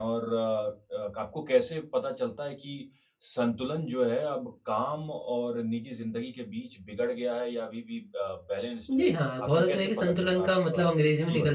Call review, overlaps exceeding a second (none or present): present